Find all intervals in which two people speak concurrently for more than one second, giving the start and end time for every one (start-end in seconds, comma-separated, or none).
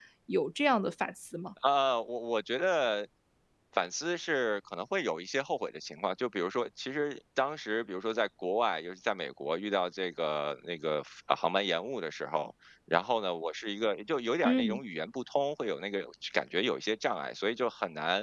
none